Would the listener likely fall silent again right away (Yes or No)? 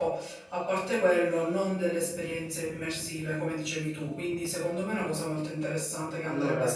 No